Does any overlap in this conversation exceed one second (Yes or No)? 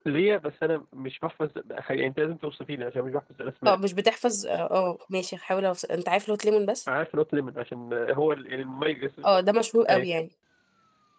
No